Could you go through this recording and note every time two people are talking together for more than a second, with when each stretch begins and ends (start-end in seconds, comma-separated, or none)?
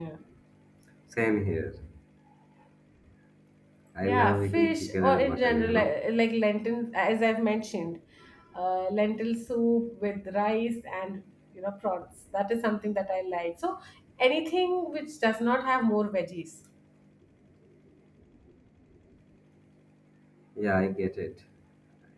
4.0-6.0